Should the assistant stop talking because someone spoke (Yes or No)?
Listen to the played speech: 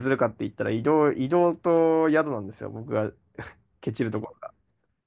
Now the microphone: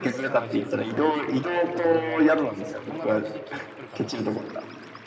Yes